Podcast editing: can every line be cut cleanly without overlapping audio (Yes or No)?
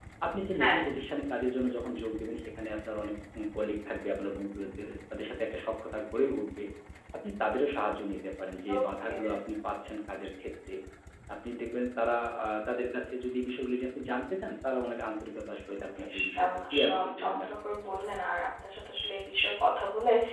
No